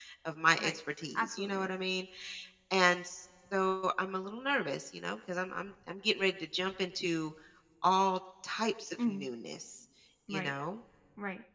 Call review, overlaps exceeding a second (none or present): none